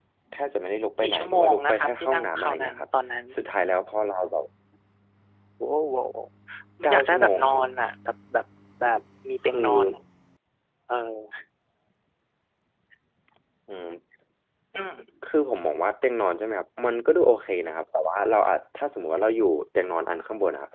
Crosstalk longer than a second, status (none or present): present